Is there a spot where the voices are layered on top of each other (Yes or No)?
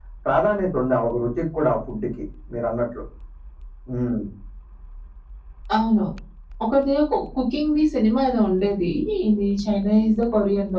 No